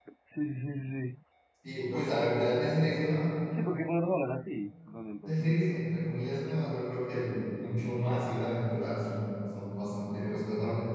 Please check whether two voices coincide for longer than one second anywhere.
No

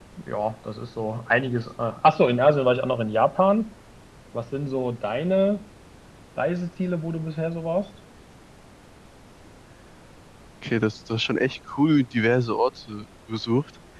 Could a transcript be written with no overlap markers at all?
Yes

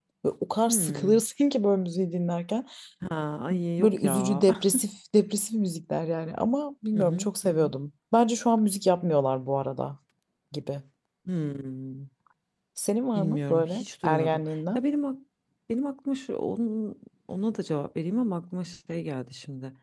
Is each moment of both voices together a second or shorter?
No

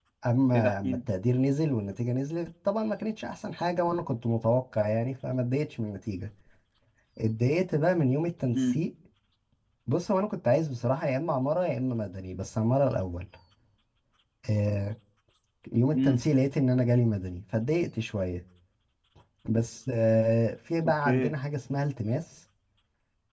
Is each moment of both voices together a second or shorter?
Yes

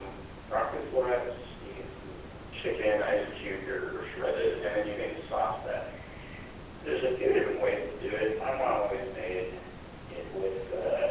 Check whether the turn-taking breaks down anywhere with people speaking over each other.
No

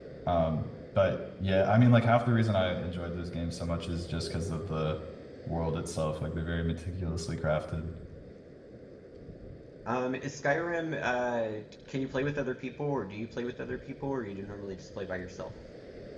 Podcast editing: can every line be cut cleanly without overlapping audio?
Yes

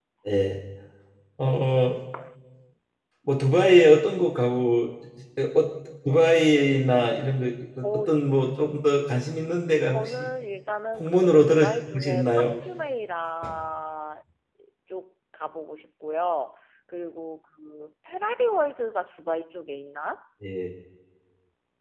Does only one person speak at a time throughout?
No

